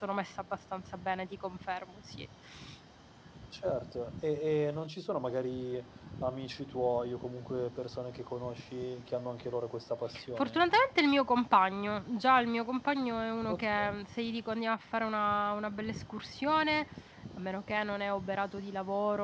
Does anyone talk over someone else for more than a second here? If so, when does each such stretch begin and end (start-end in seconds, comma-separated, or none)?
none